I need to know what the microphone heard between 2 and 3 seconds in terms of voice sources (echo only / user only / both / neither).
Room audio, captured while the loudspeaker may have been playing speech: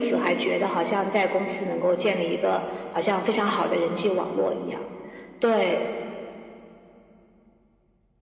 echo only